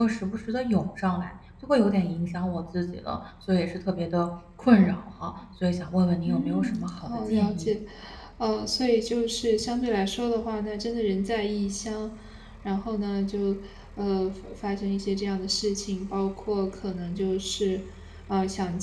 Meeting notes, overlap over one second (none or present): present